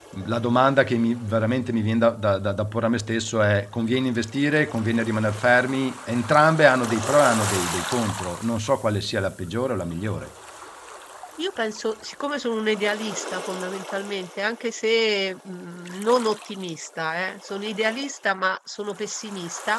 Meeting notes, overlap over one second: none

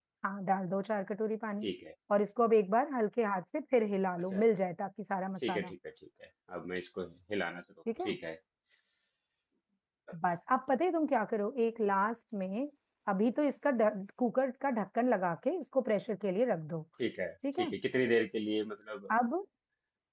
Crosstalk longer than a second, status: none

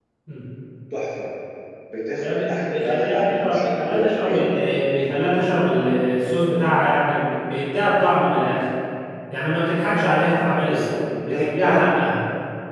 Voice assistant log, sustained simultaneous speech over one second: present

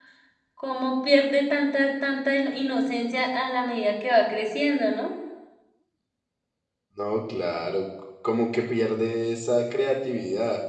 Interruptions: none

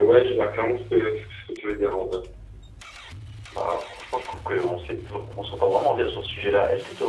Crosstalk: none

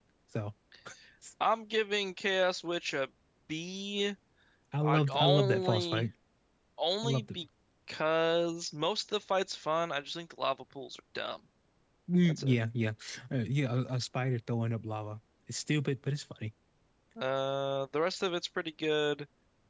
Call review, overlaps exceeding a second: present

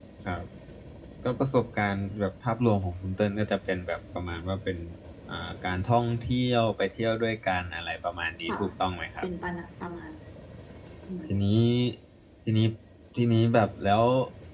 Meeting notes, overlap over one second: none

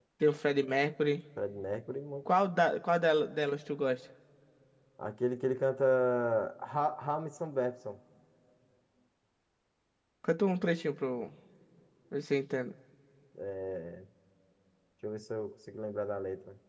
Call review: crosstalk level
none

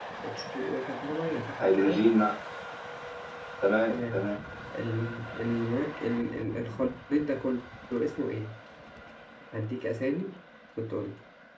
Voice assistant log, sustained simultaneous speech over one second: none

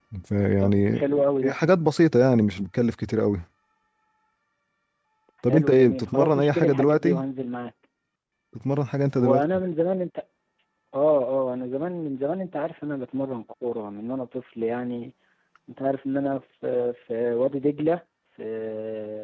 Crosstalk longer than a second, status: present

